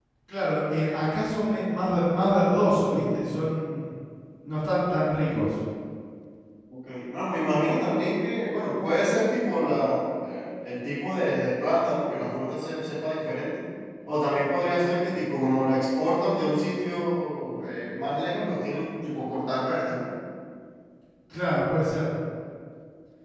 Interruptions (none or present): none